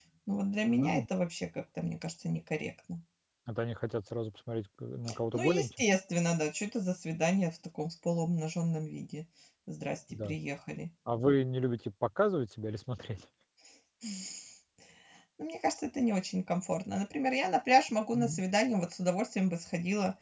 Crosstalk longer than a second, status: none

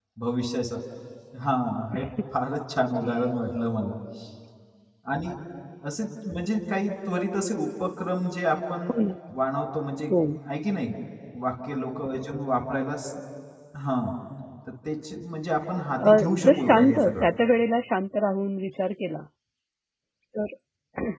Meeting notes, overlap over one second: present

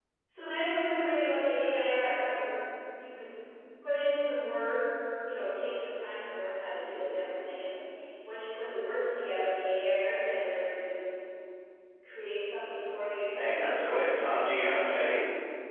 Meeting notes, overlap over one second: present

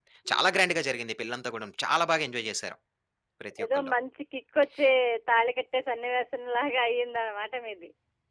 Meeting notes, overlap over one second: none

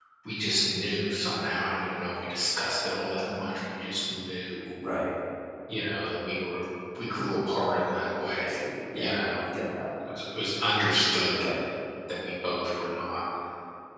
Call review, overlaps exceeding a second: none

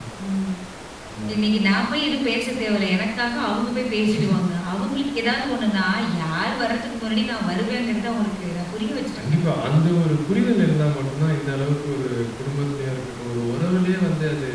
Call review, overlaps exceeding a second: none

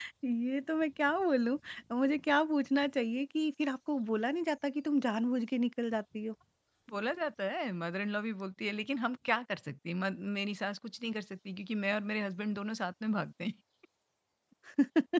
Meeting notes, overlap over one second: none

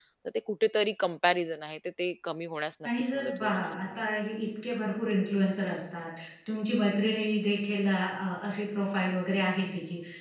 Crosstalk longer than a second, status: present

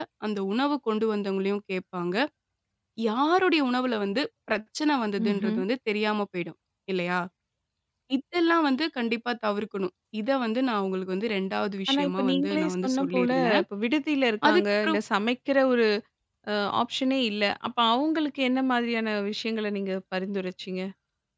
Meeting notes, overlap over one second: present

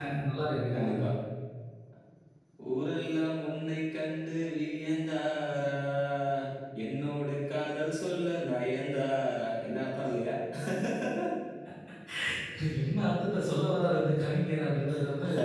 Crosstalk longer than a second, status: none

